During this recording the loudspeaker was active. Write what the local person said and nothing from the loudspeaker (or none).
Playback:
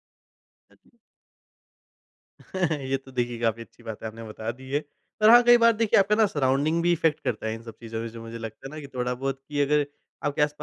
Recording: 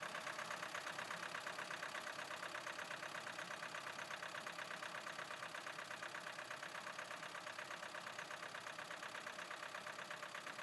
none